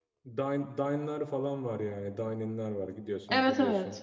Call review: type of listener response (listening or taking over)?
listening